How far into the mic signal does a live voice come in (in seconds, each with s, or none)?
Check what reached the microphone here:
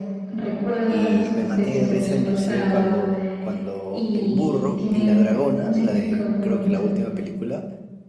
0.8 s